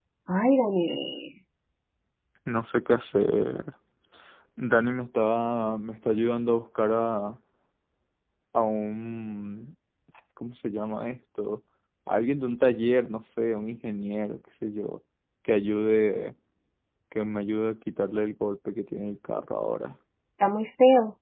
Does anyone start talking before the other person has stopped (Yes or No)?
No